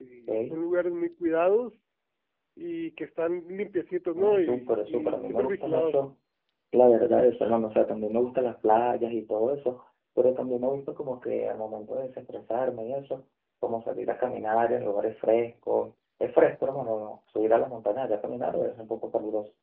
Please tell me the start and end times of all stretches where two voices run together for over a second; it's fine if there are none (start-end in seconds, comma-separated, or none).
4.2-6.0